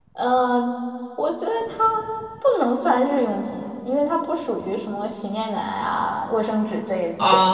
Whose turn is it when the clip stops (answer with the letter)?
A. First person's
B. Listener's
B